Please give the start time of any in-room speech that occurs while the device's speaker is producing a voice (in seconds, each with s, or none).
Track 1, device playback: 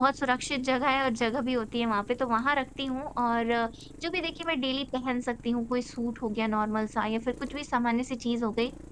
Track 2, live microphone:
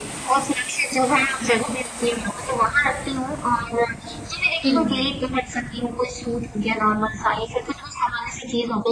4.6 s